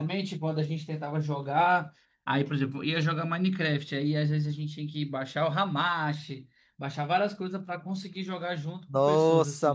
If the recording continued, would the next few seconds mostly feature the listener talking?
Yes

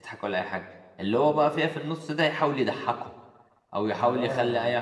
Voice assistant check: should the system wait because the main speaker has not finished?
Yes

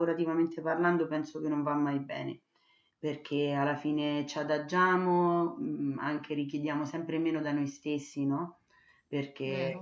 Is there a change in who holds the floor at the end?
No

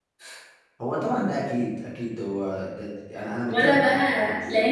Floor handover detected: Yes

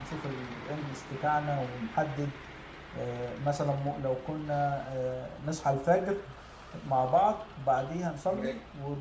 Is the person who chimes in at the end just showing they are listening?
Yes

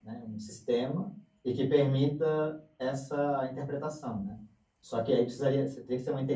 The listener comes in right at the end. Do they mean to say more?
No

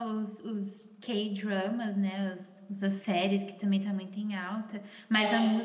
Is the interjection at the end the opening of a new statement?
No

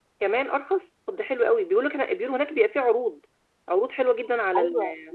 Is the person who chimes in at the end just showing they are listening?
No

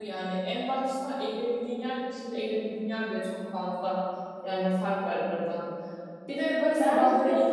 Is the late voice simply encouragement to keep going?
Yes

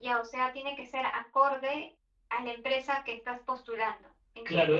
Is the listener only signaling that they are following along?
No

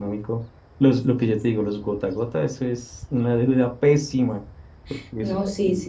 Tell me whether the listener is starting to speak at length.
Yes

